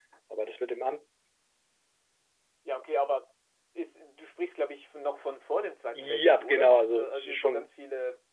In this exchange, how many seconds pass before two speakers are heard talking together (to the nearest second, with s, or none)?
6 s